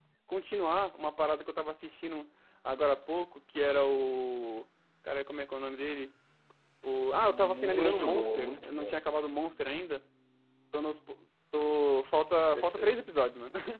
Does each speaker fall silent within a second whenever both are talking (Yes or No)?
No